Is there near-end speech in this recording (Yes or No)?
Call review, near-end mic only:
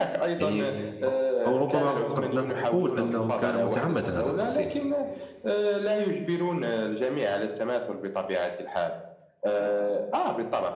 Yes